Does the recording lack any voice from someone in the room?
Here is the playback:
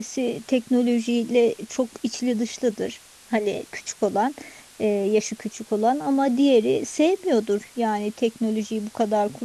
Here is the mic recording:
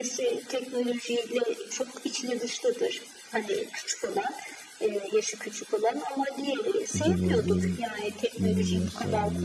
No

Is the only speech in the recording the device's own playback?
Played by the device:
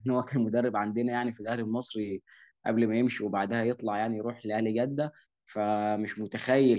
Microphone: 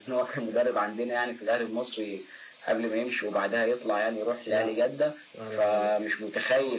No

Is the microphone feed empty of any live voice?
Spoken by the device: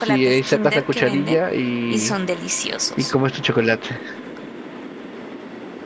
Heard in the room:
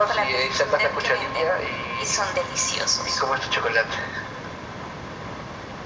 Yes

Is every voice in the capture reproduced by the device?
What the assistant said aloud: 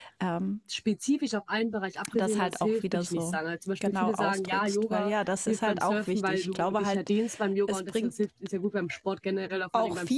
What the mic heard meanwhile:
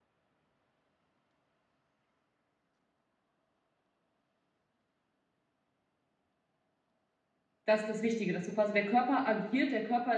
No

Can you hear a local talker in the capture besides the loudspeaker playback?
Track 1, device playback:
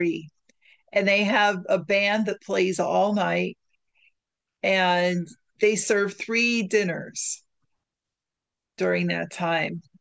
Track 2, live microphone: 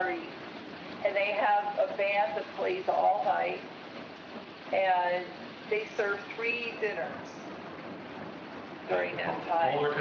Yes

